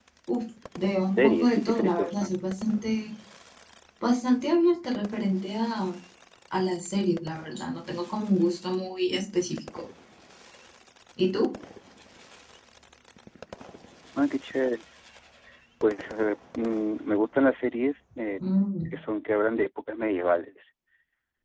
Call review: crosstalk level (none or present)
present